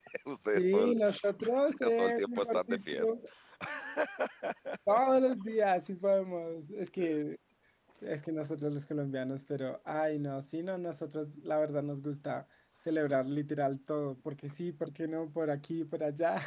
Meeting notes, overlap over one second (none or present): present